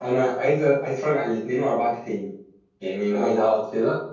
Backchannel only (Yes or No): Yes